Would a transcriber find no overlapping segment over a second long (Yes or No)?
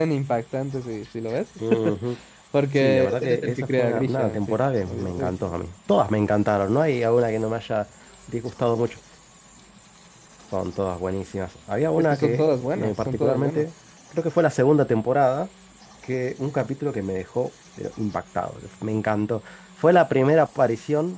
No